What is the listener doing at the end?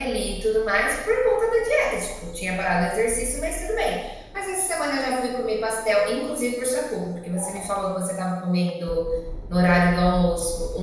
listening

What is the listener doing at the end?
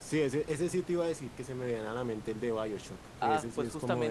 taking over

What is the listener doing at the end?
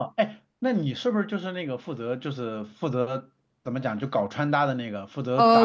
taking over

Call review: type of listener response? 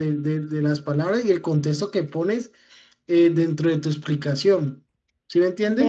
taking over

